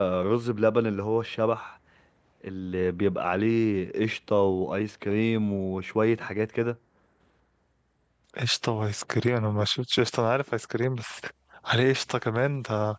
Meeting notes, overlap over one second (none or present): none